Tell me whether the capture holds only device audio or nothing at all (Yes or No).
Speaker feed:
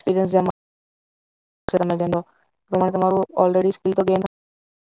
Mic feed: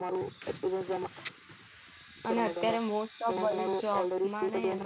No